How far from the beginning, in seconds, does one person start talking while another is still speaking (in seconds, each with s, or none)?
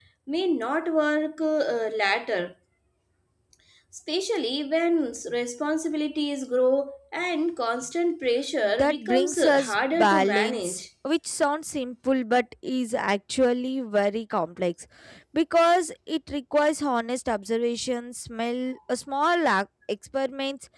8.6 s